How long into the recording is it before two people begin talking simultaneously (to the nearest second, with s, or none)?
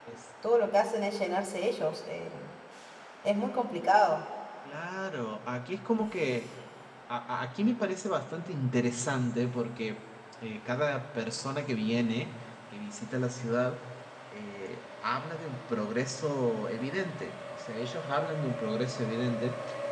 none